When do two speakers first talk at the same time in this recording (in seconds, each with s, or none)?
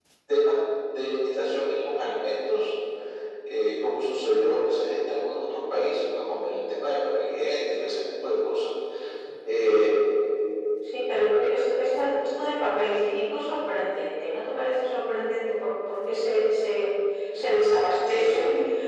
none